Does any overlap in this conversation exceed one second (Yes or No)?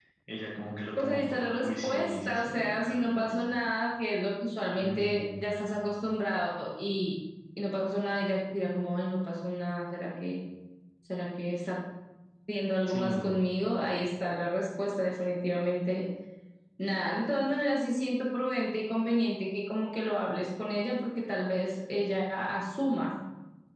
Yes